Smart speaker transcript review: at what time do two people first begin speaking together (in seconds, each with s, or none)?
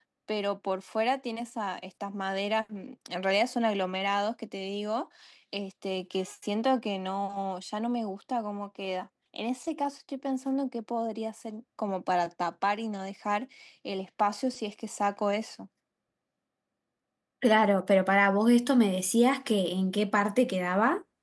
none